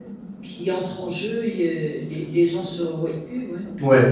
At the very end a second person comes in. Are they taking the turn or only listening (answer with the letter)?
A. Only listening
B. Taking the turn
B